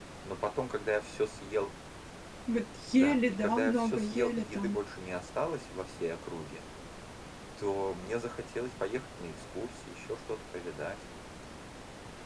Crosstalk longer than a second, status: present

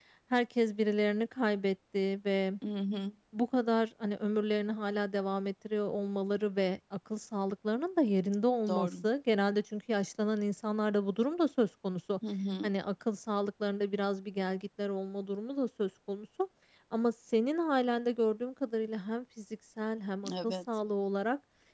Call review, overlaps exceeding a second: none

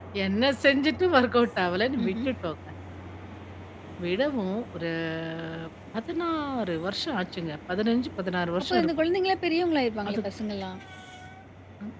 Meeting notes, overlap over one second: none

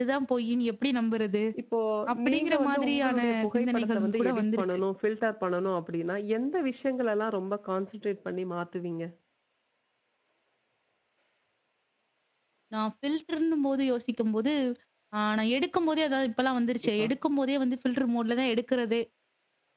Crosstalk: present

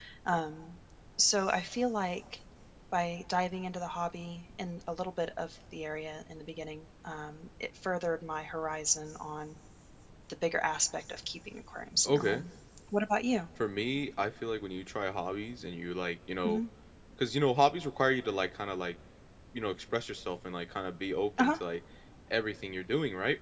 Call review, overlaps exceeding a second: none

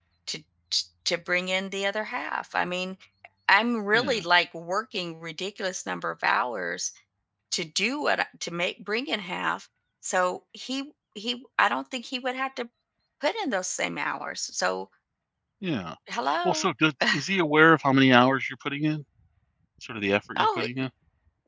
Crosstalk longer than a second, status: none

